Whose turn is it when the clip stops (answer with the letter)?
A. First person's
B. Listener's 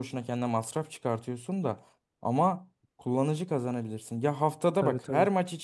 A